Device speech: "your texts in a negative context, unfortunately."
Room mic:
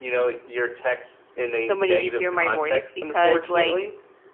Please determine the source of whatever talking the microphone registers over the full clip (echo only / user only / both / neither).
both